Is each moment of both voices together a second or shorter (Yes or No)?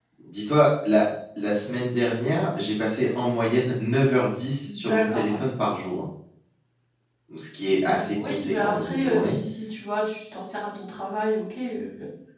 No